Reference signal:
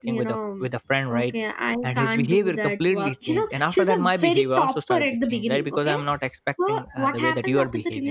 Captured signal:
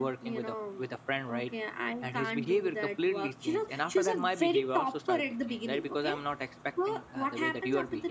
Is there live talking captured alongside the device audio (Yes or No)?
No